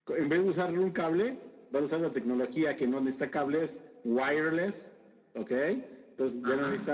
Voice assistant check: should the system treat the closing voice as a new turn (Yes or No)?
No